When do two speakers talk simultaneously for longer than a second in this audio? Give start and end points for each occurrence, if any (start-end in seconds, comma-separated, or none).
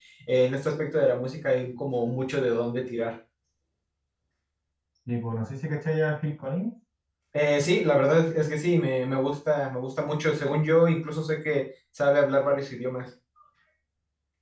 none